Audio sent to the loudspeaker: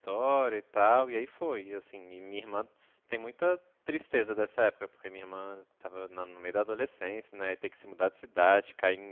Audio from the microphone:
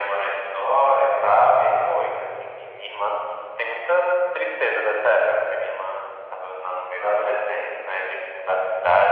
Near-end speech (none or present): none